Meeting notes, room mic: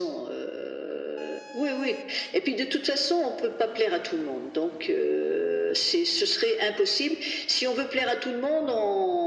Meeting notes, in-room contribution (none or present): none